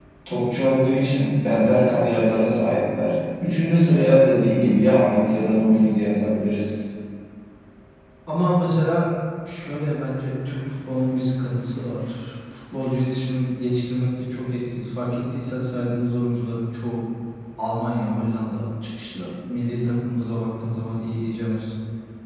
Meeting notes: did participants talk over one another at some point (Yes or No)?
No